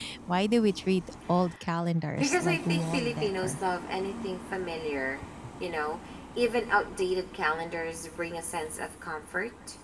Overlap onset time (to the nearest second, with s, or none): 2 s